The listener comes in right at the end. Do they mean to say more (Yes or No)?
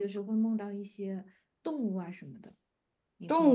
Yes